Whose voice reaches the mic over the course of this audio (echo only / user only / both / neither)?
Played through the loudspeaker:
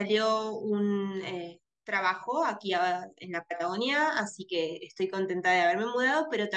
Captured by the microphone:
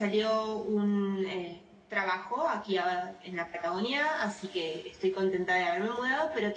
echo only